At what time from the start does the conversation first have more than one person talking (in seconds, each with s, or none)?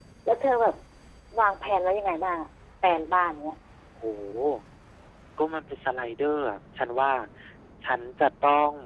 none